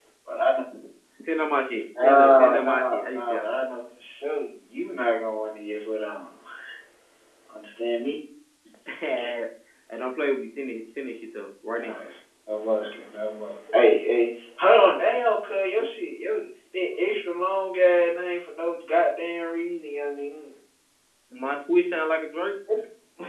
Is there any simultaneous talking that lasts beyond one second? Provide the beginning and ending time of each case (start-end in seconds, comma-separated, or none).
2.0-3.4